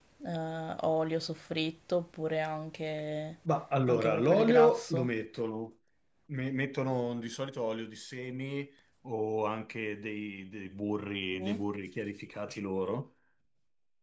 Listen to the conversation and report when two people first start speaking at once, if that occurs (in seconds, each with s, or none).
3.9 s